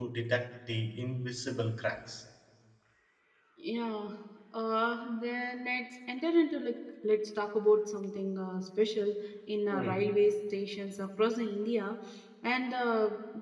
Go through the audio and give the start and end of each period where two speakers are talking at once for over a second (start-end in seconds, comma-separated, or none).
none